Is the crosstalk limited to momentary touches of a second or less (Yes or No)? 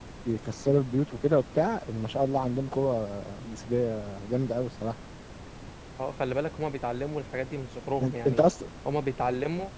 Yes